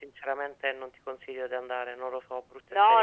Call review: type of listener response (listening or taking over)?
taking over